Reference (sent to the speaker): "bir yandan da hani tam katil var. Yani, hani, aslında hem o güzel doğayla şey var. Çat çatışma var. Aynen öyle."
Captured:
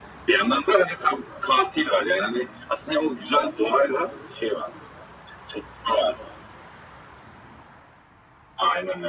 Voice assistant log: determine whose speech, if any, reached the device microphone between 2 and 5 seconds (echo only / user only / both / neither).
echo only